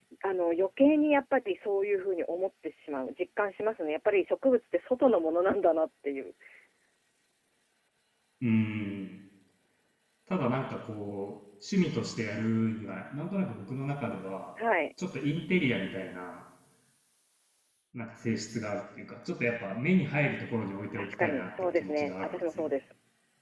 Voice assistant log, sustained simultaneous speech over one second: present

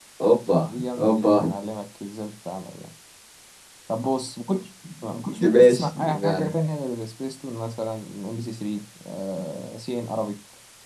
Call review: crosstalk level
present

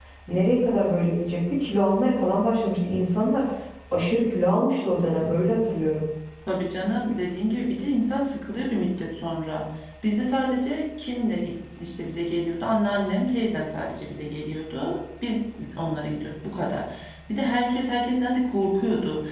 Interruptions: none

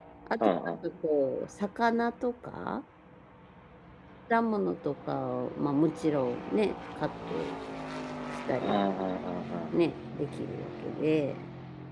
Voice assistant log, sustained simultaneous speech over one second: none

